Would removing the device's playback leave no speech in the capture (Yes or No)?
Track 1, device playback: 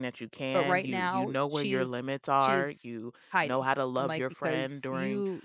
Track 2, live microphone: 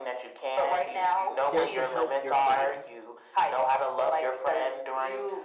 No